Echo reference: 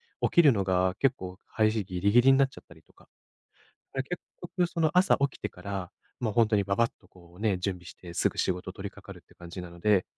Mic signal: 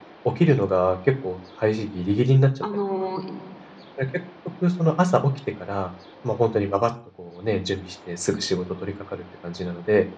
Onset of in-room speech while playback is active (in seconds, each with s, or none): 2.6 s